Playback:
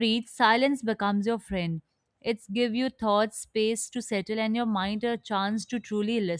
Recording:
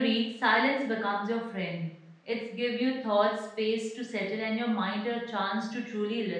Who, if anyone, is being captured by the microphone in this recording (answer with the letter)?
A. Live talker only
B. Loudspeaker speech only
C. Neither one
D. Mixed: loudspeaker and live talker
B